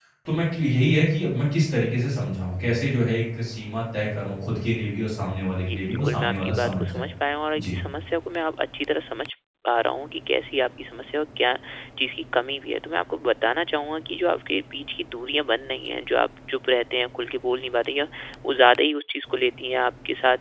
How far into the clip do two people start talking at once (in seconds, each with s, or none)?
5.6 s